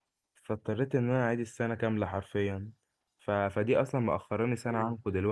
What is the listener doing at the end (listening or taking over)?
listening